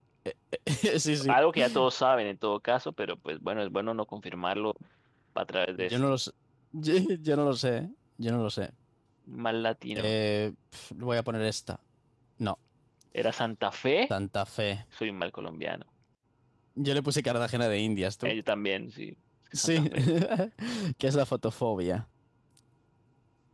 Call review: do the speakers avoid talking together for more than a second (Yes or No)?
Yes